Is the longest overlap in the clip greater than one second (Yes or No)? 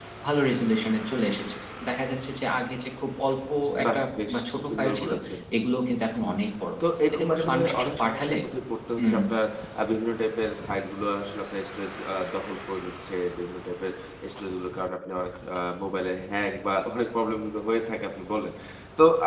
Yes